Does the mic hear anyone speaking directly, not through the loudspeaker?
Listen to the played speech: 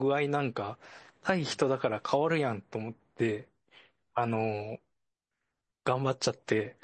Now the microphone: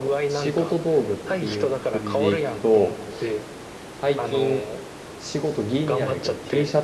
Yes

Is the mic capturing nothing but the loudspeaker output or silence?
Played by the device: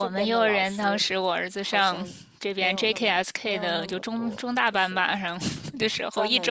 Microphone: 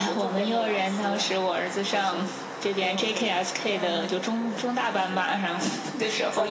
Yes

